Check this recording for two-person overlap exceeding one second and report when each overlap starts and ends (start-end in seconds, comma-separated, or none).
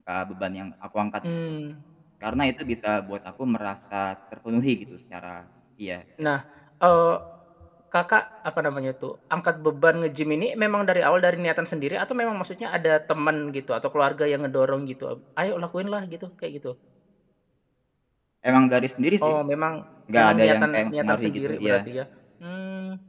20.2-21.8